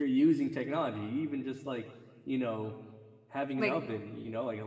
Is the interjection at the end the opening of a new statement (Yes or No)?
No